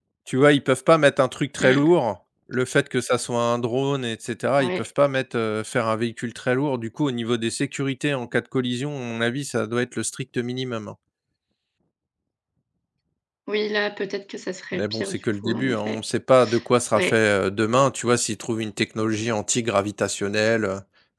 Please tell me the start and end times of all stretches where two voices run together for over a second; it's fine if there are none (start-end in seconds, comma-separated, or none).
14.7-16.0